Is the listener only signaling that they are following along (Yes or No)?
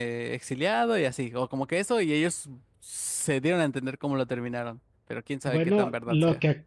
No